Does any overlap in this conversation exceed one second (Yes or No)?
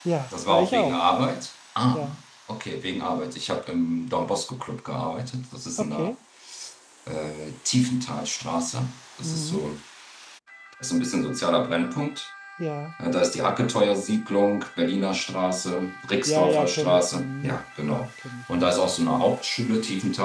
Yes